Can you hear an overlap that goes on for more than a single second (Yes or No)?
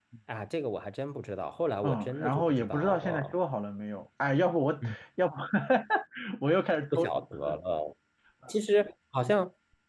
Yes